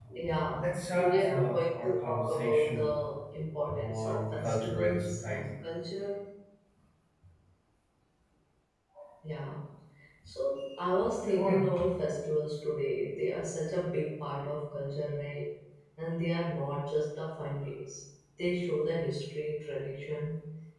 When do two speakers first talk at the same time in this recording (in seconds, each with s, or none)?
0.5 s